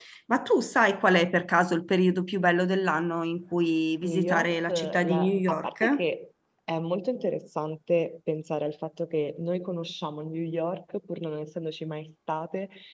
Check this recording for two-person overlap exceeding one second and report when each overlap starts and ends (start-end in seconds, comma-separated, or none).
4.0-6.0